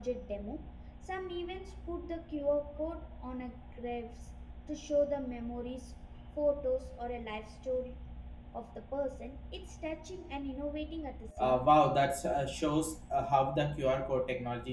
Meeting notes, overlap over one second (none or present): none